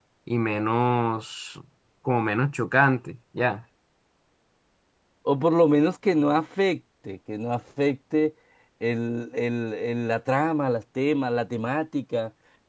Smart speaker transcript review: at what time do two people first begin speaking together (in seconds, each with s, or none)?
none